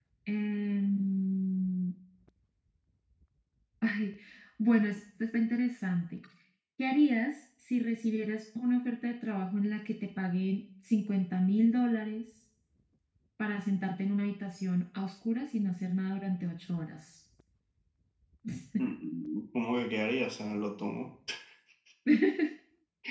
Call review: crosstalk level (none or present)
none